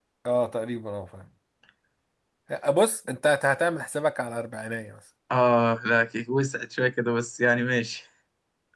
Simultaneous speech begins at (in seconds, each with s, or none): none